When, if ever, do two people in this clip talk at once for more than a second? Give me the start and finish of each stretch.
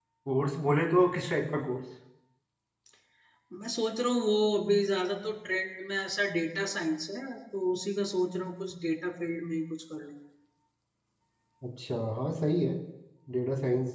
none

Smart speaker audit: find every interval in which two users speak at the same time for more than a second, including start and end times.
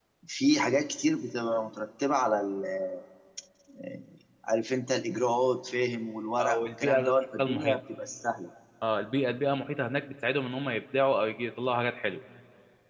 6.4-7.8

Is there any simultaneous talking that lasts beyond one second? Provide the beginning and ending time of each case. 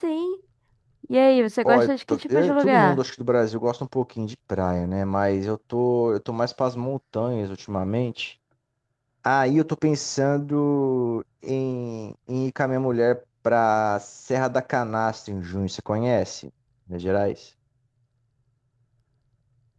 1.6-3.0

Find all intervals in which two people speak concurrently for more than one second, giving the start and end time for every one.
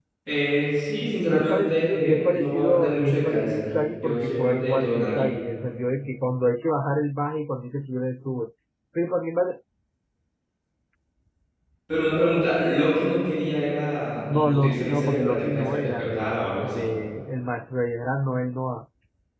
1.2-5.3, 14.3-16.9

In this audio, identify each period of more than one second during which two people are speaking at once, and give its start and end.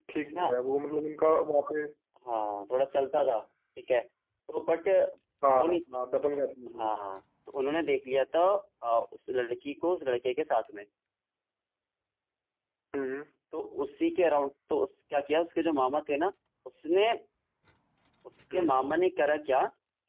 none

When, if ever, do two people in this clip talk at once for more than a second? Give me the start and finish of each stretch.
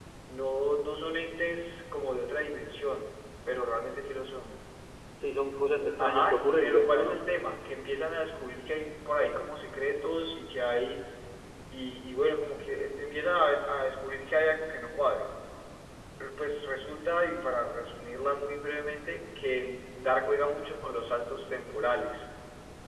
6.0-7.2

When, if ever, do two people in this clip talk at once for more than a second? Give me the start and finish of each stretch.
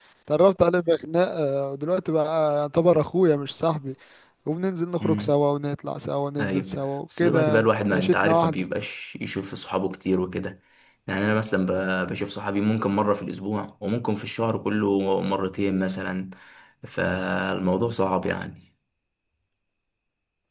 7.2-8.7

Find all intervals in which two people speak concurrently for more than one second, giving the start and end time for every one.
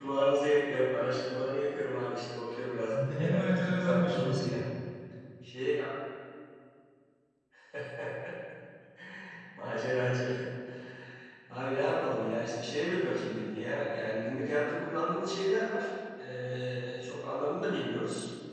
2.9-4.5

